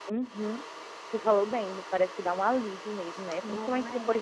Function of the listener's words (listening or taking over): listening